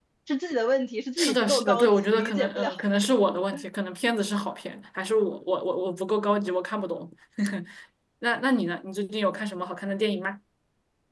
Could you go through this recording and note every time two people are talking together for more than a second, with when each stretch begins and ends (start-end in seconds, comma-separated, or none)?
1.2-2.7